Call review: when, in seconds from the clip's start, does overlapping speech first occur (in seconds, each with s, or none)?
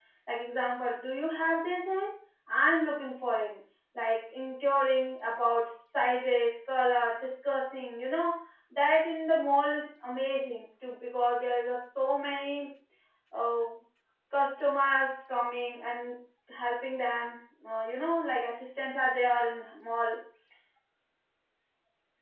none